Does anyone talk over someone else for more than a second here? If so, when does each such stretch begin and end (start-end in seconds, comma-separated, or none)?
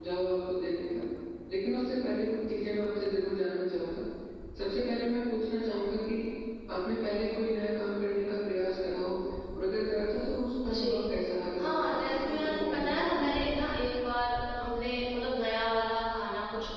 11.6-13.2